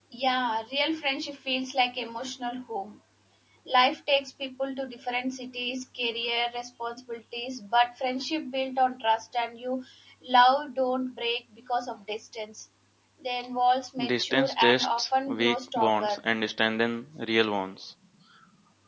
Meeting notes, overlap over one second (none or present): present